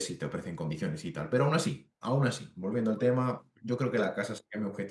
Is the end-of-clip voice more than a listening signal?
No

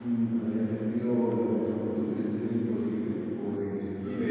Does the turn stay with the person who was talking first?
No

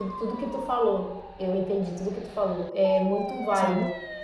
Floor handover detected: No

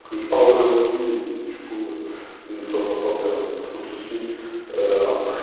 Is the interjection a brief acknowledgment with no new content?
Yes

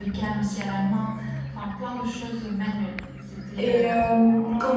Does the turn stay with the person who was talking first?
No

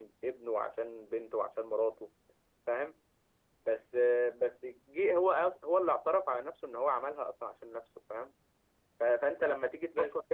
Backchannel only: Yes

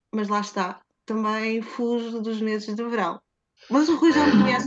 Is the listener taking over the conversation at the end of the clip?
Yes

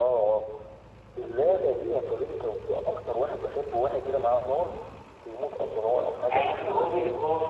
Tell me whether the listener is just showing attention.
No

